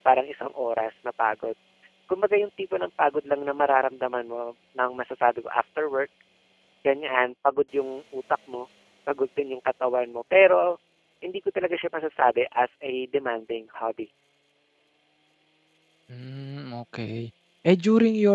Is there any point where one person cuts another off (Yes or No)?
No